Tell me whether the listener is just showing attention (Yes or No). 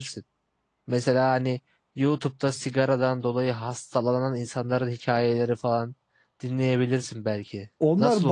No